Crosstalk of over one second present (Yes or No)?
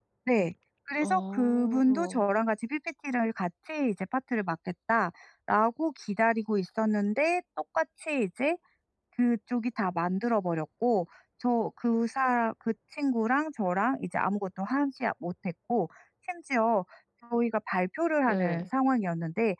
Yes